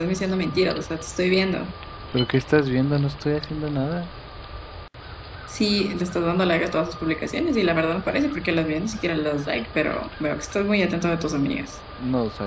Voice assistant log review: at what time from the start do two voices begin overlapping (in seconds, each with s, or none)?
none